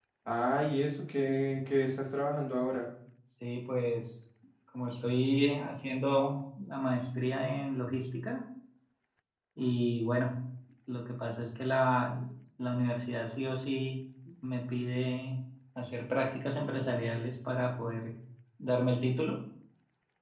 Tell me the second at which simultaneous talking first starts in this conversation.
none

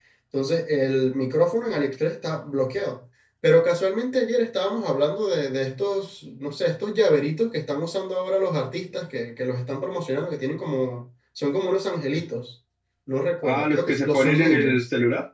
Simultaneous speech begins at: 13.4 s

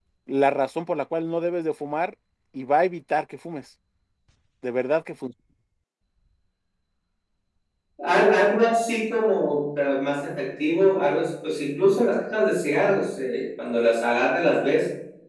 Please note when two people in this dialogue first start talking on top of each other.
none

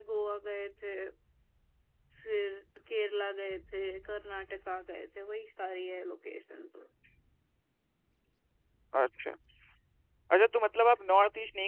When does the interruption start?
none

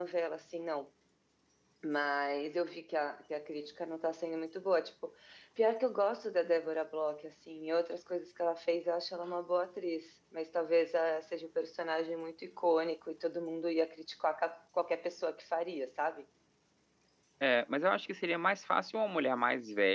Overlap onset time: none

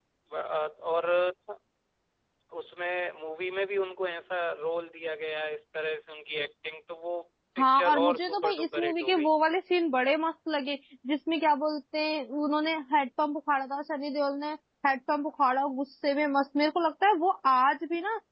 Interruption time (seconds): 7.6 s

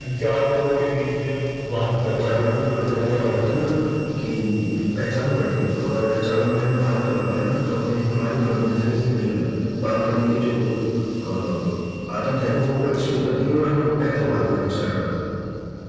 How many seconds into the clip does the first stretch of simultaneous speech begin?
1.7 s

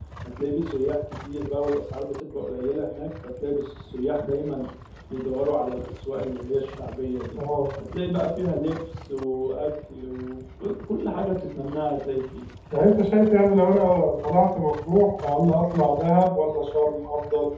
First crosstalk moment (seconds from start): none

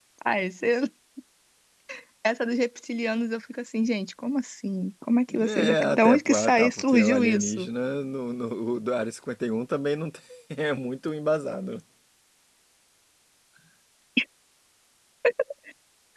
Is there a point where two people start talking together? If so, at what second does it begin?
5.3 s

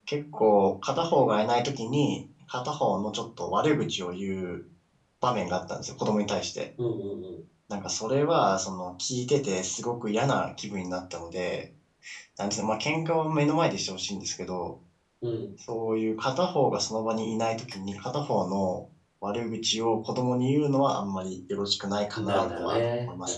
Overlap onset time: 22.2 s

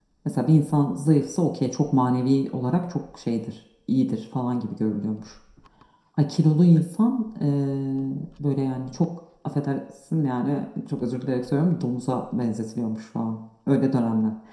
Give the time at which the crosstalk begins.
none

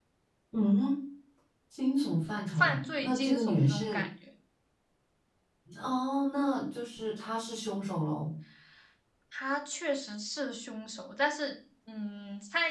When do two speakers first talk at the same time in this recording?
2.5 s

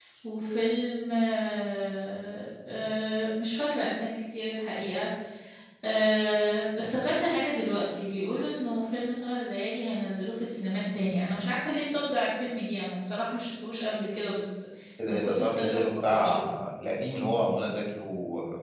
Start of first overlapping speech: 15.1 s

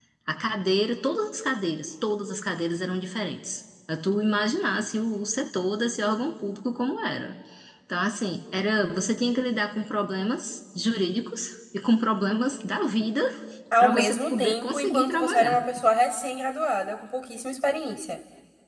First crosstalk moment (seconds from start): 13.8 s

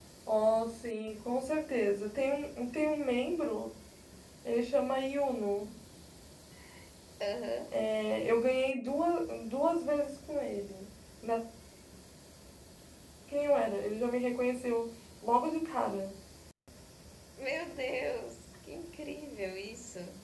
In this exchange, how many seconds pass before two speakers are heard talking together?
none

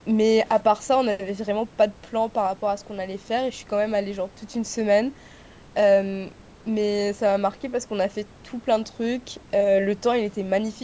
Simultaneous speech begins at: none

